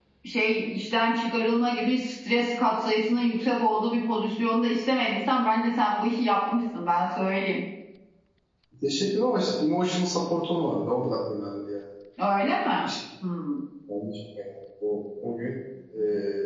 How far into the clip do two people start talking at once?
none

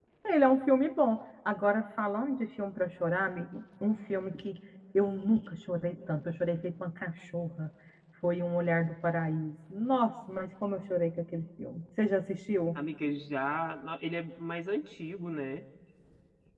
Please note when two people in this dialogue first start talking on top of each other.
none

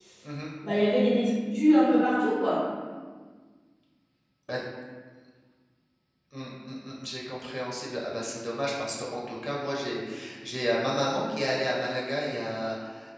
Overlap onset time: none

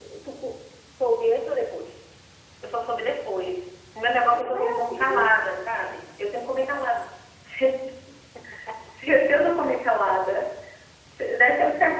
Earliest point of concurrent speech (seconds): 4.2 s

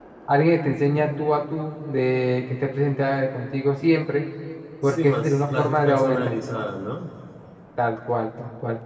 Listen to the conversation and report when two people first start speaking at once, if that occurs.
4.8 s

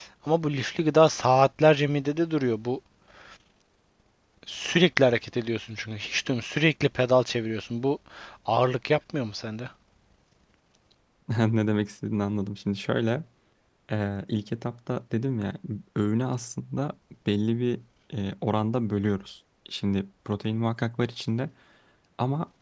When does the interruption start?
none

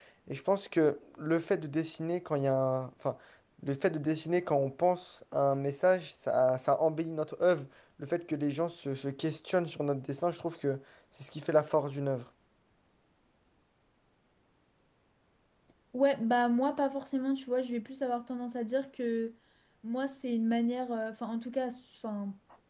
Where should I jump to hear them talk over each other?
none

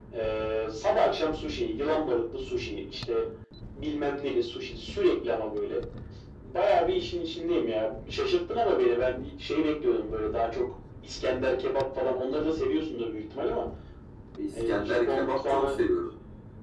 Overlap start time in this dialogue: 14.7 s

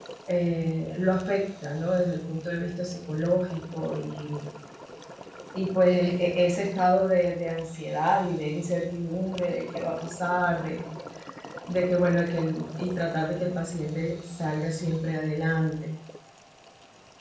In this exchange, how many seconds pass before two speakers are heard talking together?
none

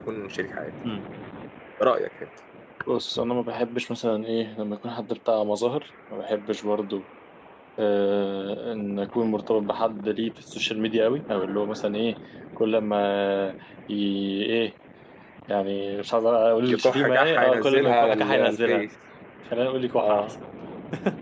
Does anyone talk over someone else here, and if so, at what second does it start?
16.7 s

